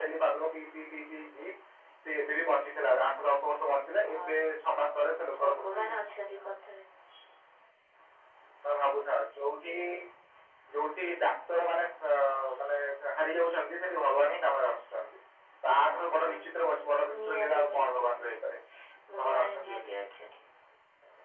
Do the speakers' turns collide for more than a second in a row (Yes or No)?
Yes